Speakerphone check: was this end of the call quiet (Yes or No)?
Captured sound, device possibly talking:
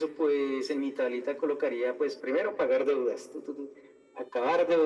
Yes